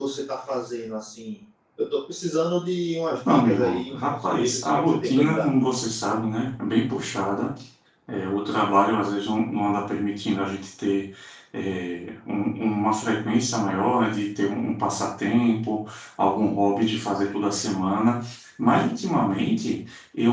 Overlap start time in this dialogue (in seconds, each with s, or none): 3.2 s